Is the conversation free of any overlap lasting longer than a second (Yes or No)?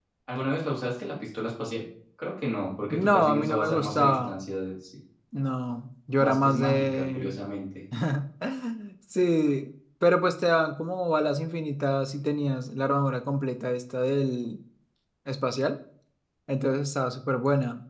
No